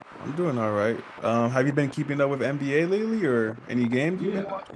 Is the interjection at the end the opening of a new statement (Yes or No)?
Yes